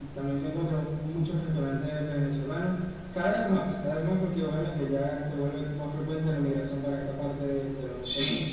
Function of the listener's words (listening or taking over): taking over